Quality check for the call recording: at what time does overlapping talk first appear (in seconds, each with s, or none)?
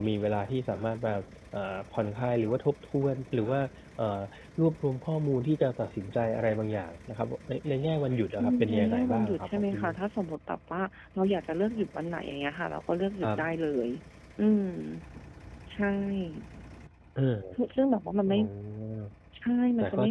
8.4 s